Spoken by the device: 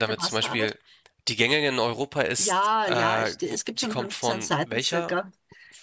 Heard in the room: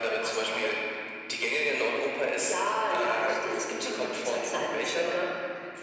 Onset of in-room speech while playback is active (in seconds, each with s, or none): none